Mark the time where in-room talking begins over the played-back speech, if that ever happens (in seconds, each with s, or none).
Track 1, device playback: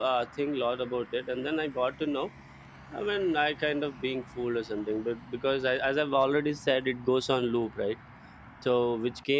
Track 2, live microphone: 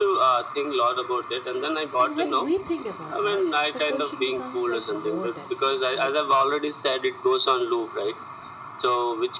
2.0 s